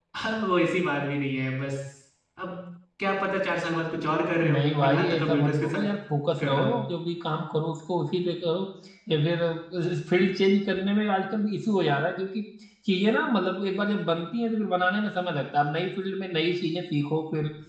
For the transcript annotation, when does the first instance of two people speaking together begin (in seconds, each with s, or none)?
4.4 s